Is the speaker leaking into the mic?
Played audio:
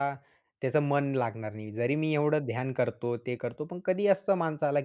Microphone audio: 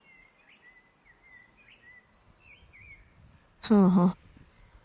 No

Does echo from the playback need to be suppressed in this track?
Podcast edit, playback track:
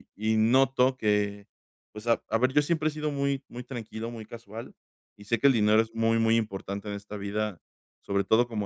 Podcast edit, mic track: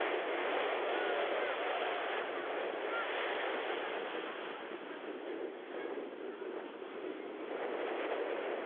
No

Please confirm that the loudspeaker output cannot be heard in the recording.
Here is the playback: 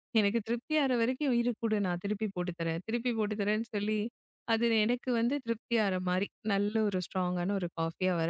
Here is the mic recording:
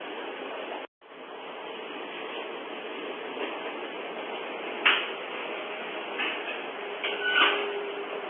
Yes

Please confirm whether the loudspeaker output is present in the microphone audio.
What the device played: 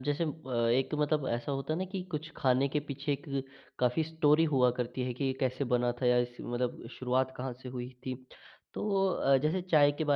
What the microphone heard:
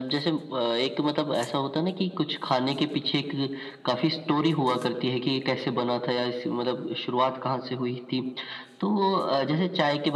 Yes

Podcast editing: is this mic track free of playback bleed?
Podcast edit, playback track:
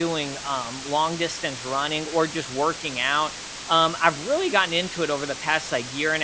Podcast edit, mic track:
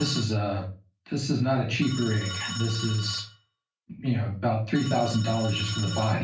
Yes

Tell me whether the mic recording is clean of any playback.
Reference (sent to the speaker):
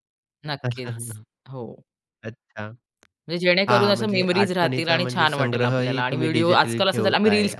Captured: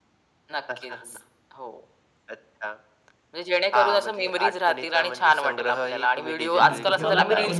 No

